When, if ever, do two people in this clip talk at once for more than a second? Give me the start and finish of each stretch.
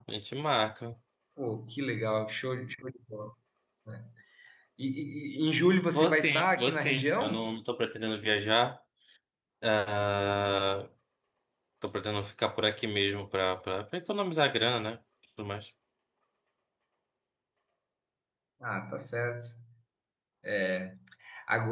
5.9-7.5

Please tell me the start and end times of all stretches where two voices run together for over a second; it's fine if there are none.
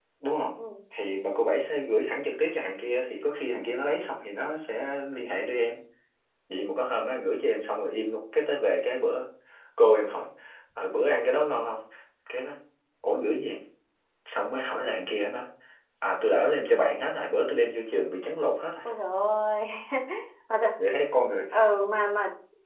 none

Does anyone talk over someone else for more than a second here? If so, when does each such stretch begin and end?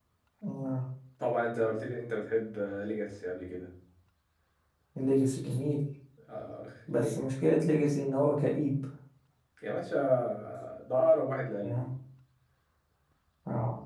none

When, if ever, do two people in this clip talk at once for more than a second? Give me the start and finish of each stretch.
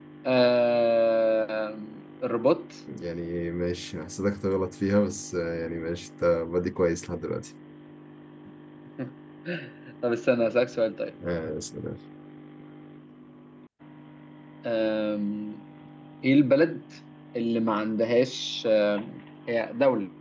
none

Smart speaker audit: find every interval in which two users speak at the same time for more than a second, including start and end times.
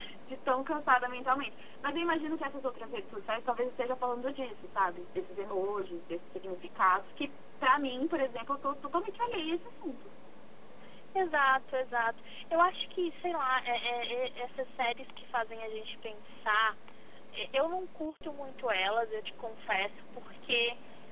none

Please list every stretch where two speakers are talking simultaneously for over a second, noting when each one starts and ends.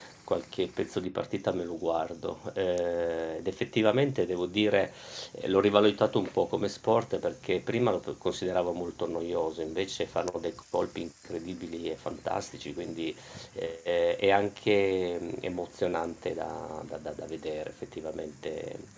none

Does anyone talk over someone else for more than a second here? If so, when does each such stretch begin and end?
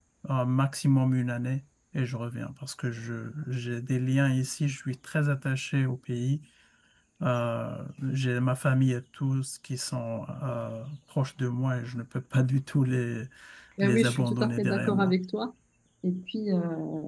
13.8-15.1

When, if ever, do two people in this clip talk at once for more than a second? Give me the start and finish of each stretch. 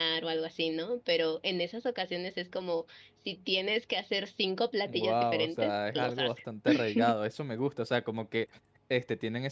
4.8-6.3

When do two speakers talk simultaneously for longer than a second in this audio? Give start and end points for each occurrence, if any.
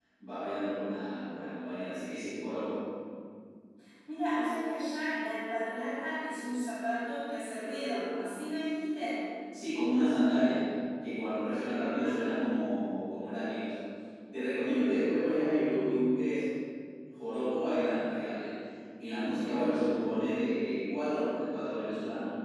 none

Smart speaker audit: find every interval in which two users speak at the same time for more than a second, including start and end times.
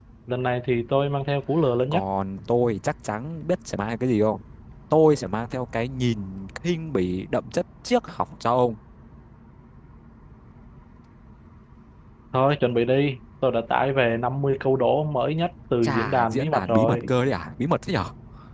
15.8-17.1

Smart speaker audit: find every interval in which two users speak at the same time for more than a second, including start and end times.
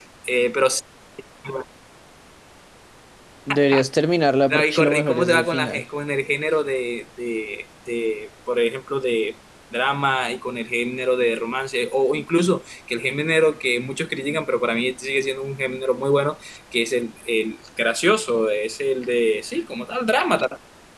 4.5-5.8

